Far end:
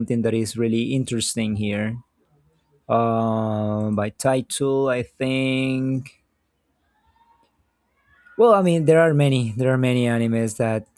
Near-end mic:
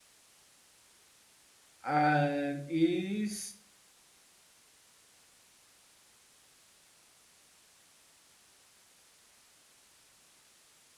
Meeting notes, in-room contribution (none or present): present